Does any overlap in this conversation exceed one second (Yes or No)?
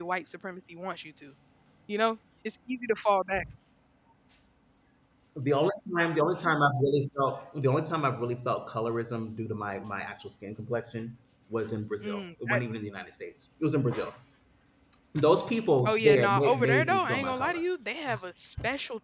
Yes